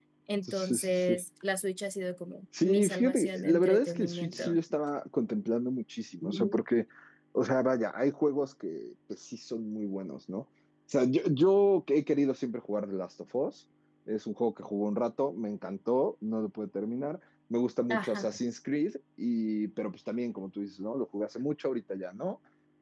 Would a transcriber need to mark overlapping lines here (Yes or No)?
Yes